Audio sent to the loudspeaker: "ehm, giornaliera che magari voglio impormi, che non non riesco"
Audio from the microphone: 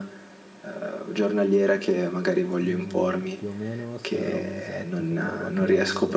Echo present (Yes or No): Yes